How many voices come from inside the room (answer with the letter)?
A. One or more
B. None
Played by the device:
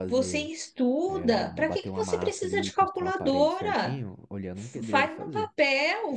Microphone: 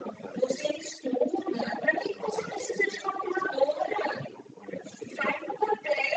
B